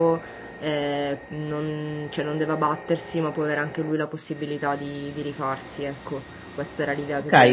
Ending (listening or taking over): taking over